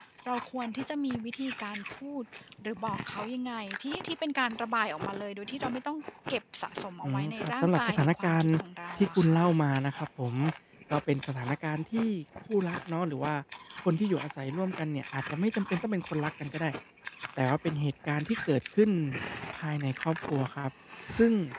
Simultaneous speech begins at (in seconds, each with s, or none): 7.0 s